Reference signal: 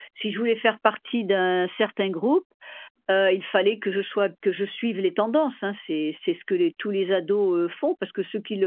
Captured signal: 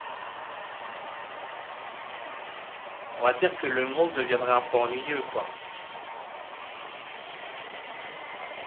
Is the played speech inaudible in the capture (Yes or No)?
Yes